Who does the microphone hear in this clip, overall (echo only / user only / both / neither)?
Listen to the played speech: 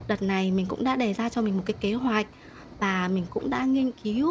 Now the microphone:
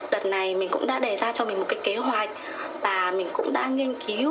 echo only